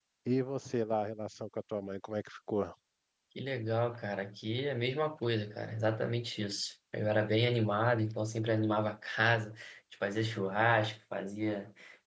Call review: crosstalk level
none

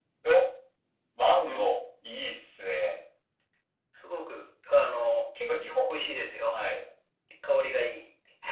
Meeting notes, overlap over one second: none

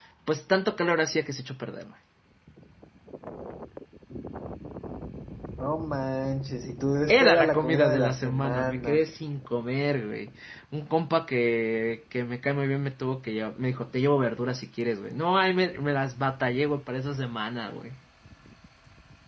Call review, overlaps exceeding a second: present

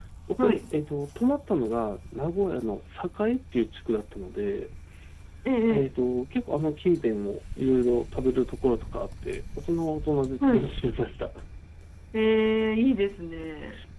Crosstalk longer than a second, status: none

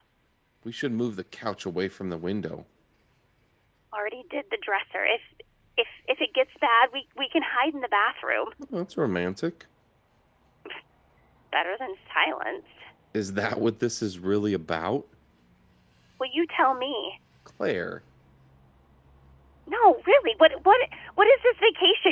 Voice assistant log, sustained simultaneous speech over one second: none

